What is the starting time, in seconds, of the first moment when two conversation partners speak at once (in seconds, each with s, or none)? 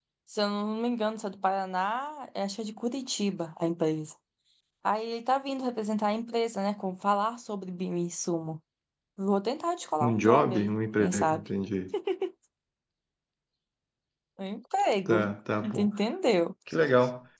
10.0 s